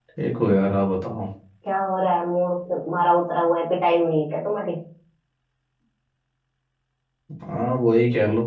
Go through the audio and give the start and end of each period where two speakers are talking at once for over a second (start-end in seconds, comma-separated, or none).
none